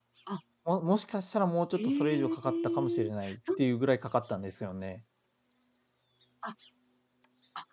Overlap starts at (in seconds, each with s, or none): 1.8 s